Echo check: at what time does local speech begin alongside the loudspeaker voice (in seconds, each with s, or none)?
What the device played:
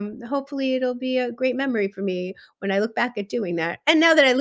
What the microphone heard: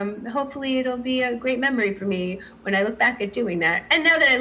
none